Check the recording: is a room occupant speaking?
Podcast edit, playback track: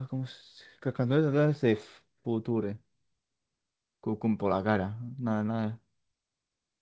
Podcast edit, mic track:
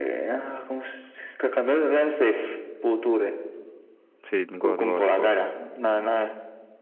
Yes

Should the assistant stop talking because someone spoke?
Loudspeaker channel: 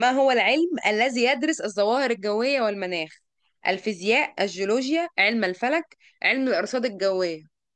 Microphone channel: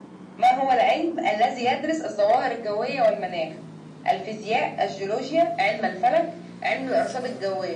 No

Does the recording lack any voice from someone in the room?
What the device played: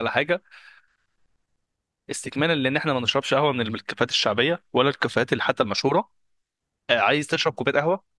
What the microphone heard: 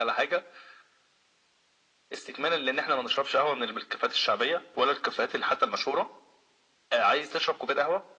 Yes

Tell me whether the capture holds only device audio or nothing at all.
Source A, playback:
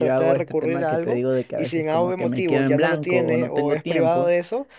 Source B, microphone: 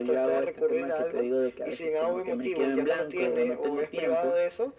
Yes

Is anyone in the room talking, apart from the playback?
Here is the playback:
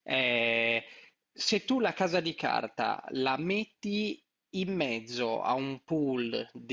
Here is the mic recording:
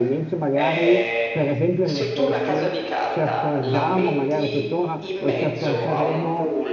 Yes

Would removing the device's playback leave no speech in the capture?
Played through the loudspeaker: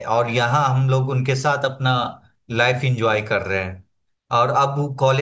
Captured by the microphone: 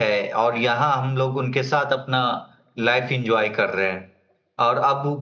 Yes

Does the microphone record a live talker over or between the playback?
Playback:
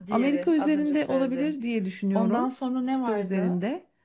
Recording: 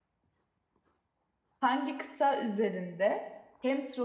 Yes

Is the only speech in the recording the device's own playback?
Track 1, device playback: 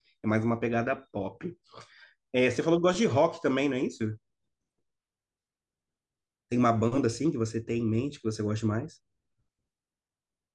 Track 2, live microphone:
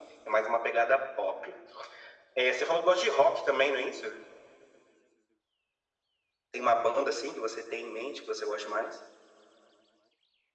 Yes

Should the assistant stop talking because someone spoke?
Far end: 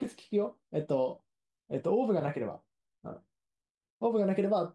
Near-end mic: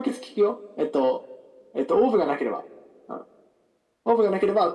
No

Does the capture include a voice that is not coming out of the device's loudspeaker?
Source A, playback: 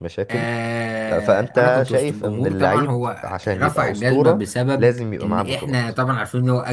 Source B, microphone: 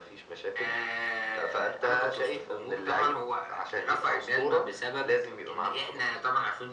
No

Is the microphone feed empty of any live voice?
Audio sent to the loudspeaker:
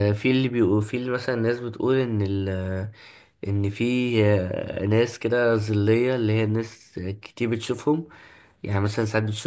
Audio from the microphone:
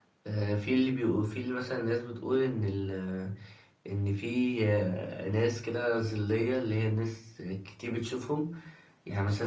Yes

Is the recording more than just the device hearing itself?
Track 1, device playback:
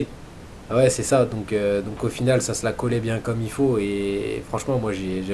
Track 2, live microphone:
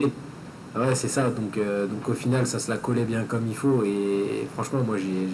No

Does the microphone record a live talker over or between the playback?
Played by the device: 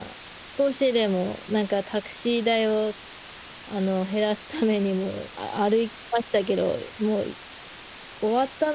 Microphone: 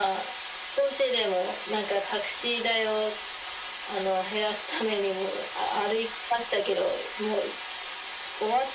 No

